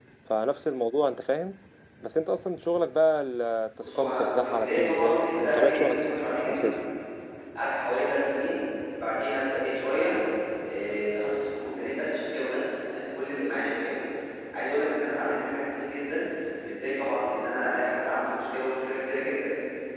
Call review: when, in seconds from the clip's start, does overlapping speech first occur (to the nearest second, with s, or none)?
4 s